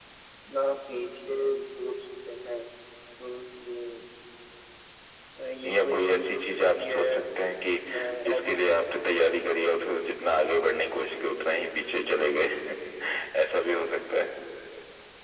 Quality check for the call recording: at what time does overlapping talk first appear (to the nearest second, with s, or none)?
6 s